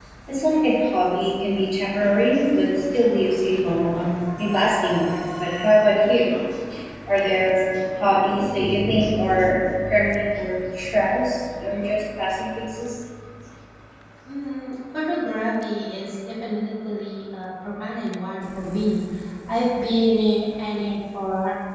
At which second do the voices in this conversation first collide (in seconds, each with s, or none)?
none